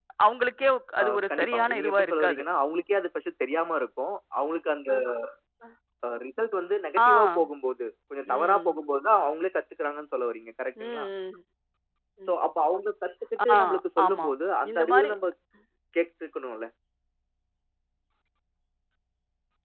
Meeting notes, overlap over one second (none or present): present